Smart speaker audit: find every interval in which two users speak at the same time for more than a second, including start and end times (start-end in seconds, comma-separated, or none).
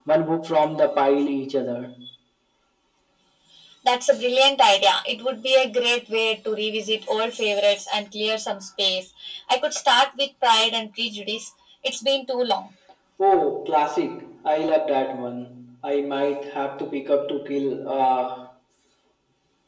none